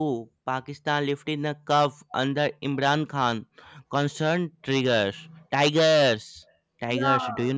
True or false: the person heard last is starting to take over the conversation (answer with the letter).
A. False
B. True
B